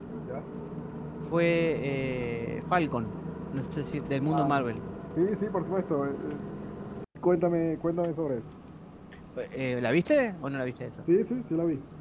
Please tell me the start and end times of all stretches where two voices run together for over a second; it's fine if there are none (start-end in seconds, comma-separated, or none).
none